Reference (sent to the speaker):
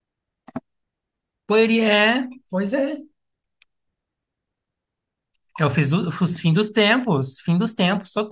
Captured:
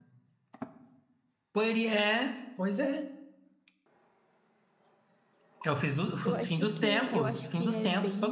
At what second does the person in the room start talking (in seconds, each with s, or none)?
6.2 s